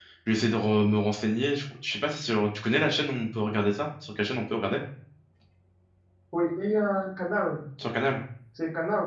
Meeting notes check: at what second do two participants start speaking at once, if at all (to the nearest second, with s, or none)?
none